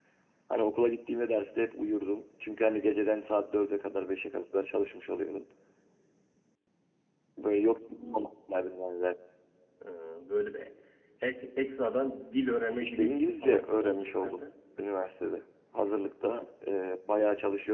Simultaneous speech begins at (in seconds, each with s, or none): 12.8 s